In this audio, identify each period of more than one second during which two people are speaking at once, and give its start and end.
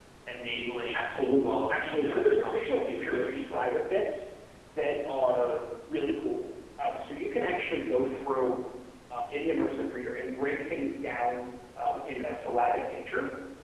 0.9-3.7

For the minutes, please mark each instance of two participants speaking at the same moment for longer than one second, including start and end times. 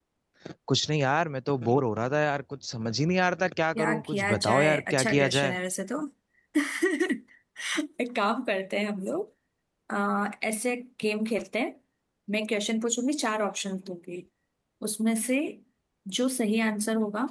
3.8-5.6

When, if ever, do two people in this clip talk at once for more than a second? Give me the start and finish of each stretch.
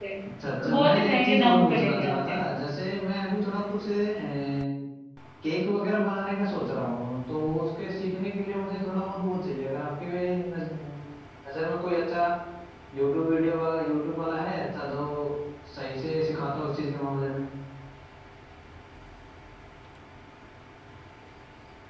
0.6-2.4

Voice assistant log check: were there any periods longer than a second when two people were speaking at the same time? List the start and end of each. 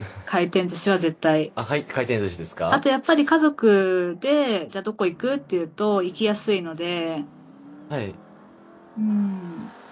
none

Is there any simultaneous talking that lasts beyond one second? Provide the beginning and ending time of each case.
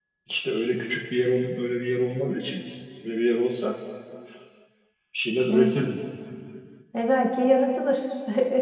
none

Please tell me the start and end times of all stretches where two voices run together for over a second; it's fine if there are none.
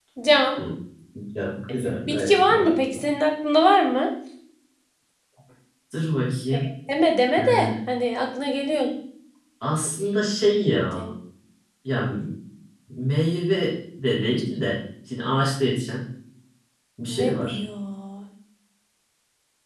1.7-3.0

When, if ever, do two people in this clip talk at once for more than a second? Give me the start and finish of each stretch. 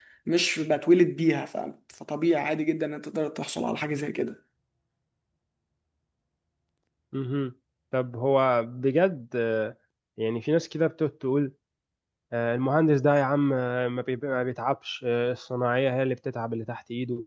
none

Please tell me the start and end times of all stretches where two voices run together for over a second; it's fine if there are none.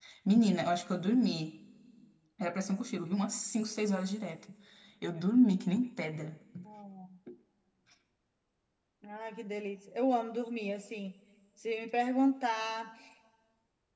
none

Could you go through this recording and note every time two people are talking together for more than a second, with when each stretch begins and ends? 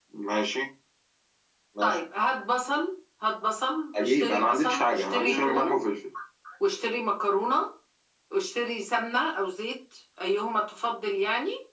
4.0-5.8

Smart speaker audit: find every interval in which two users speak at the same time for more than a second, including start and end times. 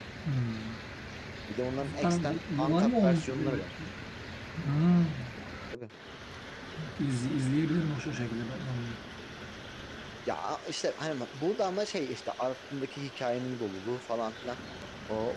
1.9-3.9

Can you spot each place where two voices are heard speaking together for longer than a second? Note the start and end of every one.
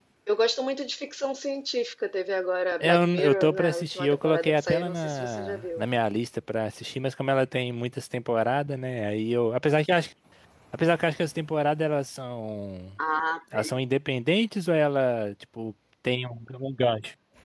2.8-5.8

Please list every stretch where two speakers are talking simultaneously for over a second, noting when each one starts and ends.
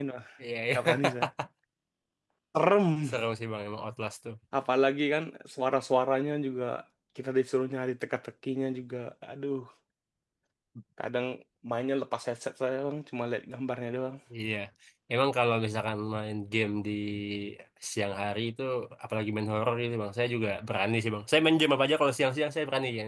none

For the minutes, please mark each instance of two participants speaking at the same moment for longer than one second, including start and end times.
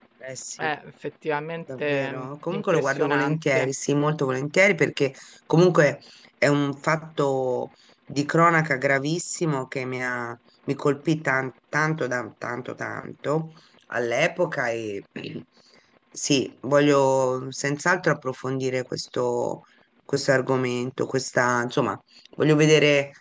1.8-3.7

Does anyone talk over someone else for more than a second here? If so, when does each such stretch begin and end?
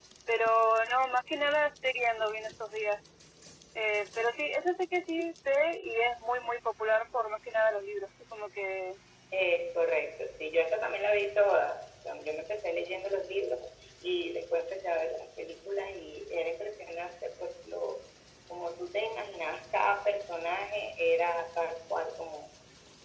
none

